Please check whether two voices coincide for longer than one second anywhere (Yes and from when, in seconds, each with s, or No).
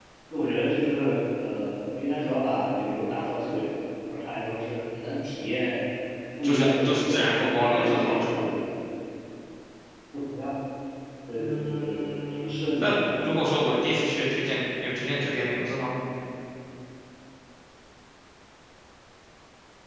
Yes, from 6.4 s